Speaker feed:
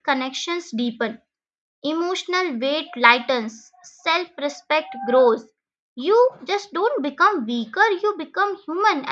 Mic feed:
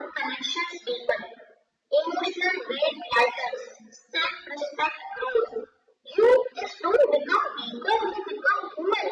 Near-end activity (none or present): none